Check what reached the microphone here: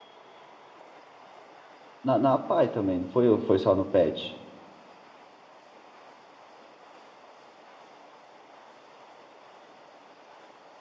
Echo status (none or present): none